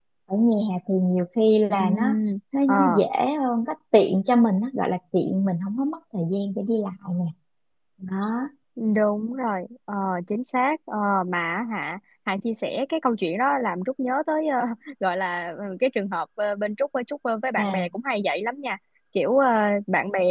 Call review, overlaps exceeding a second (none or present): none